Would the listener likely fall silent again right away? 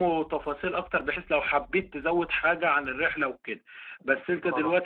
Yes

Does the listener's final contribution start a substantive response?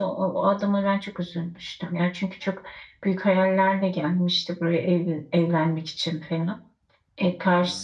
Yes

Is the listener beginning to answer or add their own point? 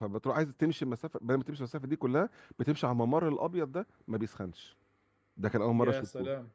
No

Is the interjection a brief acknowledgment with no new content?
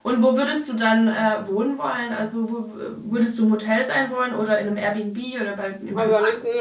No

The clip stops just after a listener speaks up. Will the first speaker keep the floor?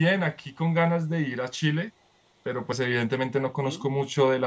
Yes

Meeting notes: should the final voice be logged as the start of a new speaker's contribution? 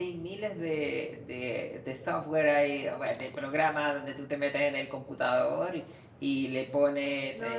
Yes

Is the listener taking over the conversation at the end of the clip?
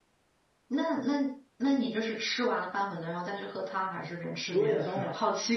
Yes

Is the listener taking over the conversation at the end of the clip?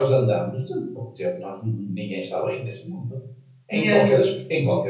No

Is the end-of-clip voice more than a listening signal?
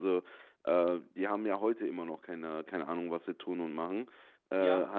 Yes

